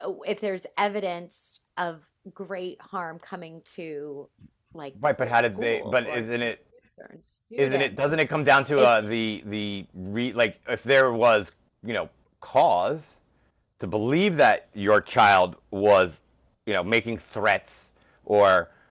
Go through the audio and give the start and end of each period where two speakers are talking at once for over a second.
5.2-6.5

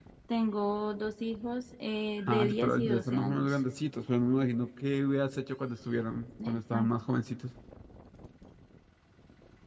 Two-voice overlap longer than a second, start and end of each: 2.3-3.6

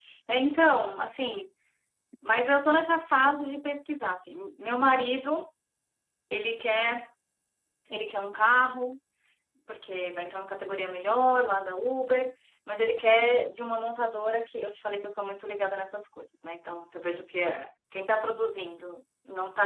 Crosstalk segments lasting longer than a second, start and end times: none

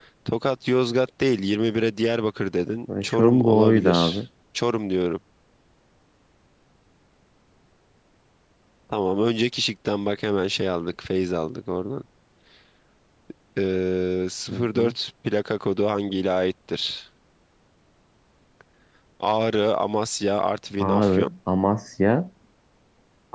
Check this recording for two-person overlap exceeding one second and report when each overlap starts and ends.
2.9-4.2

